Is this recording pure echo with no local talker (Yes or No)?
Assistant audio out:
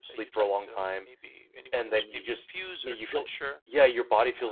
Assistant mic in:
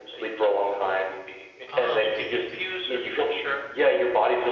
No